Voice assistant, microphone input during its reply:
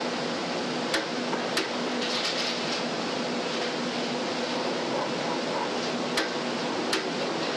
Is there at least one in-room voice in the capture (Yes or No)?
No